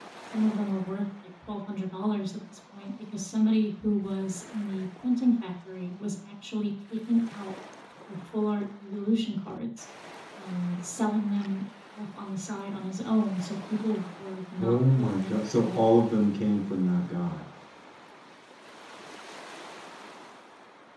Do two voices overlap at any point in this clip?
Yes, from 14.6 s

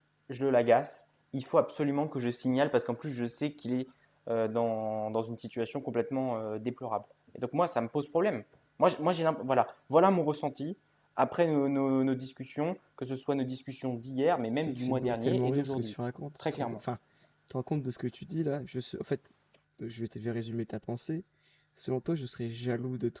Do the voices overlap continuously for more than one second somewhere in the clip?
Yes, from 14.6 s

